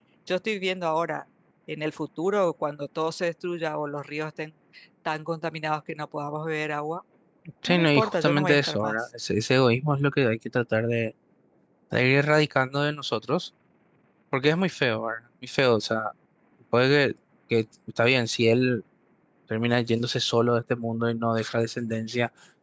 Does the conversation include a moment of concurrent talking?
Yes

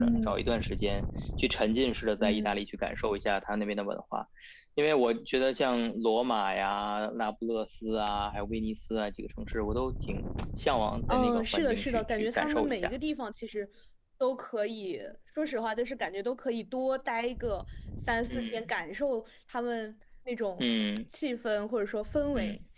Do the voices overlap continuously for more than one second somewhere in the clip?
Yes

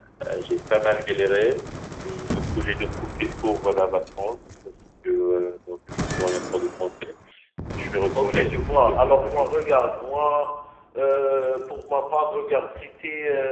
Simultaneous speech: Yes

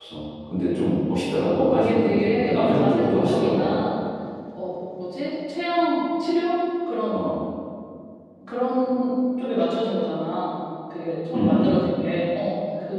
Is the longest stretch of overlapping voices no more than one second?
No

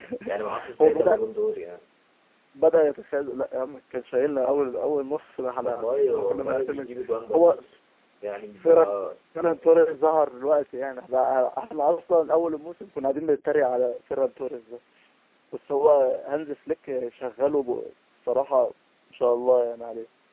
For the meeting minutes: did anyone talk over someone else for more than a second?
Yes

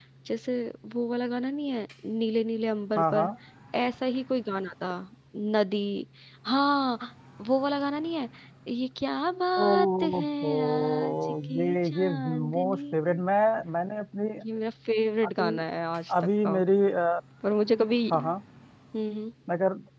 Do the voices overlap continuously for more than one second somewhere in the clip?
Yes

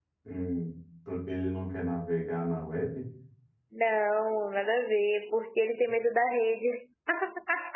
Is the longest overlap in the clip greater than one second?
No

